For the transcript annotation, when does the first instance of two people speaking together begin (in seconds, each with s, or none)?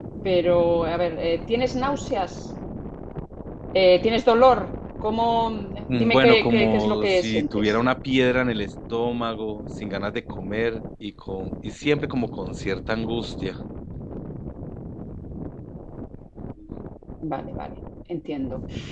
5.9 s